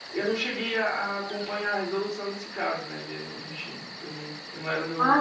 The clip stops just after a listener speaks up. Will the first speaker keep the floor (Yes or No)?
No